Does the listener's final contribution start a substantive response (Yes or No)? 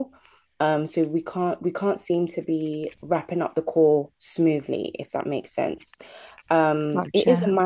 No